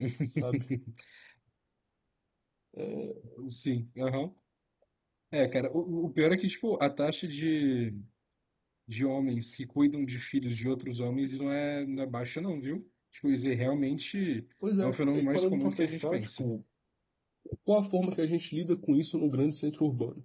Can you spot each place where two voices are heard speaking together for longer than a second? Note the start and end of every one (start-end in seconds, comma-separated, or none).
14.8-16.4